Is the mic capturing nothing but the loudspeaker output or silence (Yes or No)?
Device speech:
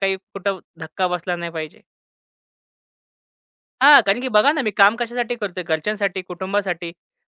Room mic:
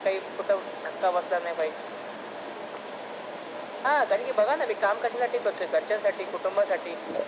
Yes